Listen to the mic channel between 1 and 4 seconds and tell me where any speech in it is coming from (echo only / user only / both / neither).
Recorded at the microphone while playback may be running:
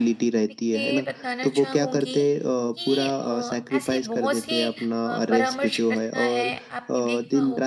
both